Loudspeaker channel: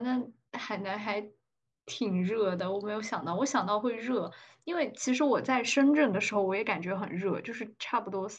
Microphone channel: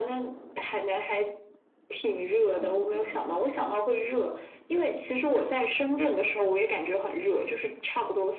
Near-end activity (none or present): present